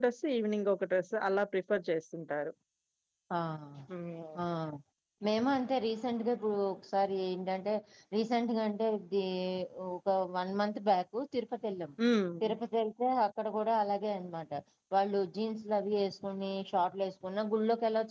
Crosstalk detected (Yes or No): No